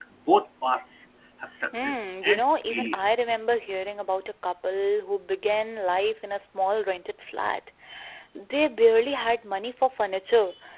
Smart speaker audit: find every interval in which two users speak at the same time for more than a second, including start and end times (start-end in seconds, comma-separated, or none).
1.7-3.1